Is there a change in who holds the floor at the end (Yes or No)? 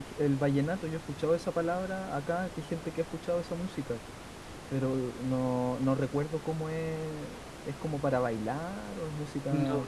Yes